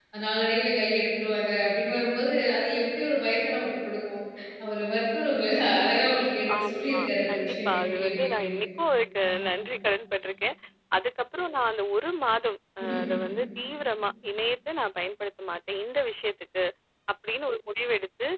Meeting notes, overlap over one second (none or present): present